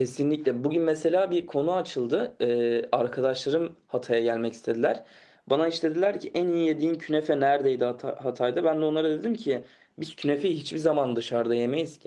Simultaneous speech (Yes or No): No